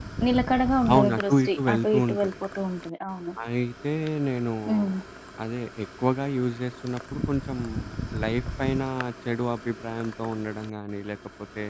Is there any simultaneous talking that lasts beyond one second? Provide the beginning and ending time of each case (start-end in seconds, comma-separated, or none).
0.9-2.3